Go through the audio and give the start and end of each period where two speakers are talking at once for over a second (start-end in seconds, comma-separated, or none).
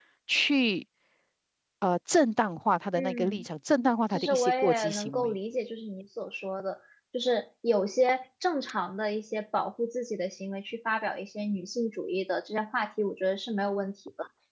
4.1-5.4